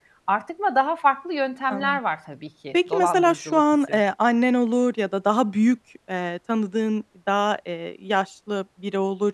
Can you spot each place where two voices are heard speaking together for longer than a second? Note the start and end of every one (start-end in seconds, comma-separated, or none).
2.7-4.0